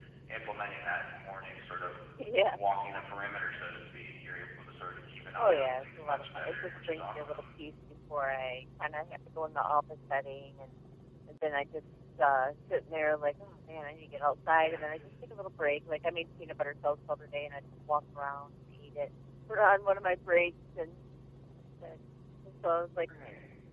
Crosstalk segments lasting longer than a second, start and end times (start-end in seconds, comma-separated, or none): 5.4-7.4